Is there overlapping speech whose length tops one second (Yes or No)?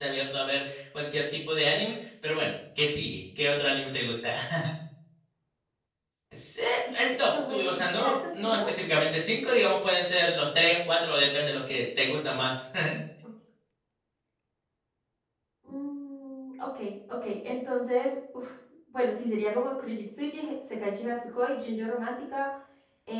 Yes